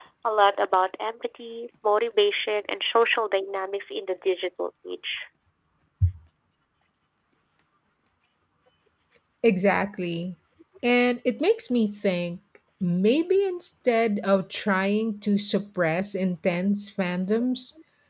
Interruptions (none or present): none